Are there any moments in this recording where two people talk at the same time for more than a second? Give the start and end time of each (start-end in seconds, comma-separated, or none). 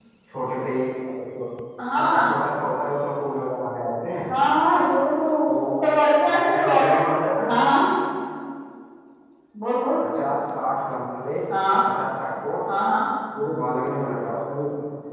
6.3-7.6